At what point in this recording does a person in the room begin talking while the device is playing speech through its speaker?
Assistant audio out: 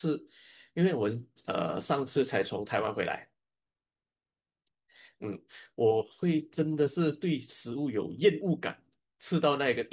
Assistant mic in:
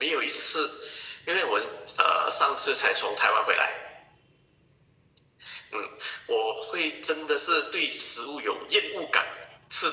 none

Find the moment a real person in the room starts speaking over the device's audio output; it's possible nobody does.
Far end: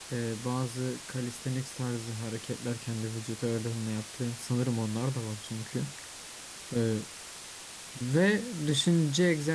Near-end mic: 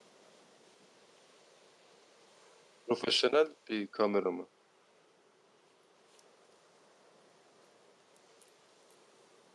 2.9 s

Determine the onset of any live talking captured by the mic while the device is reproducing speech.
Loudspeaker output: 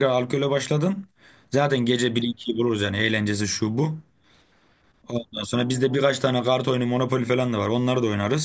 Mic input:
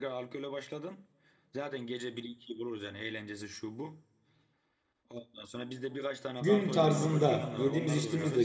6.4 s

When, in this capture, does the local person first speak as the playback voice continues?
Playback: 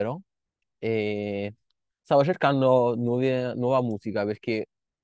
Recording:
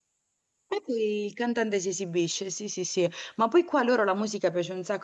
0.7 s

